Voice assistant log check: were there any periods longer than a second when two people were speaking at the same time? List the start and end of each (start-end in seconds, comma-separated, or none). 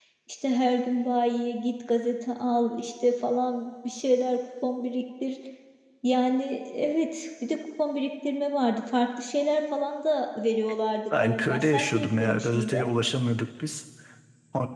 11.1-12.9